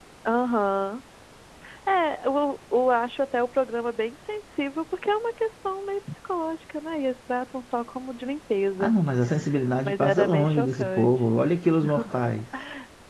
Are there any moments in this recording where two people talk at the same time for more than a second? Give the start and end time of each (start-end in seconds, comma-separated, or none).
9.8-11.2